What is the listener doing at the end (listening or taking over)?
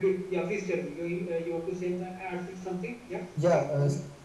taking over